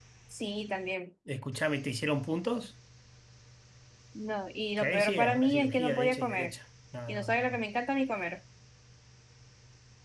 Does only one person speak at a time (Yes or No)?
No